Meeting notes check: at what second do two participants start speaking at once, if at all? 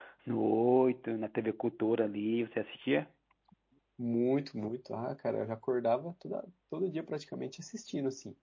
none

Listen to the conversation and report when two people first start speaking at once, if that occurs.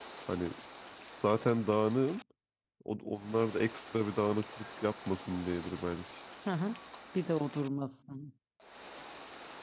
none

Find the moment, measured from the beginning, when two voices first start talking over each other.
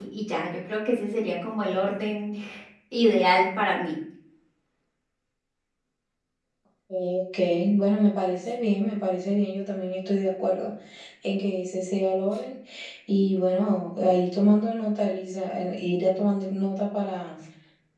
none

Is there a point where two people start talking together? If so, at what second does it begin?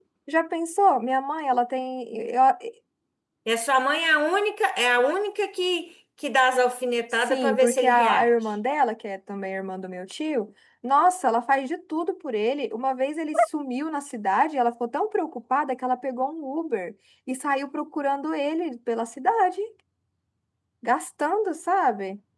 7.1 s

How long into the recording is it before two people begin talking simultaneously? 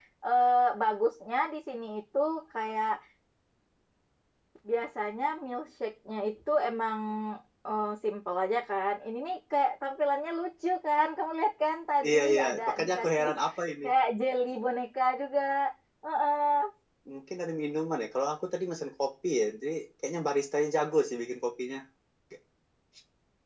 12.0 s

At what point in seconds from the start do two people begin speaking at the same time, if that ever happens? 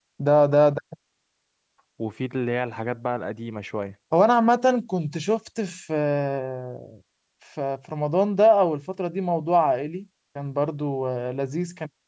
none

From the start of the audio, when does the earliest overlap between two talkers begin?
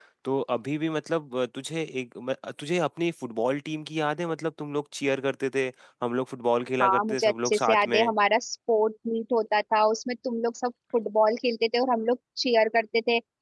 6.8 s

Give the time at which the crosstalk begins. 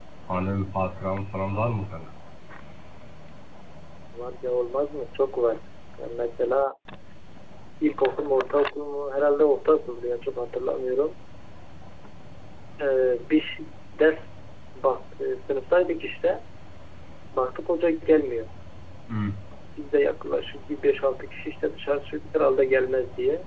none

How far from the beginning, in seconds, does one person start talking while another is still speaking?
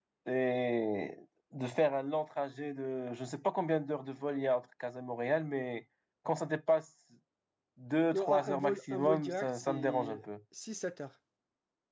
8.1 s

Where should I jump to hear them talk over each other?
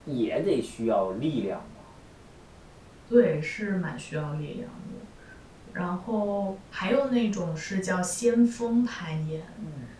none

